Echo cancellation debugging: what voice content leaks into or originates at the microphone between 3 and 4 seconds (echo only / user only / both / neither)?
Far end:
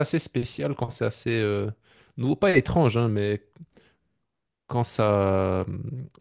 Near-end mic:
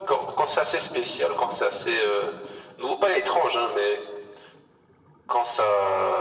echo only